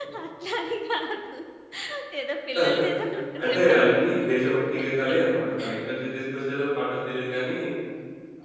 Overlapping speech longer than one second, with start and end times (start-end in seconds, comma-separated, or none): 3.4-5.2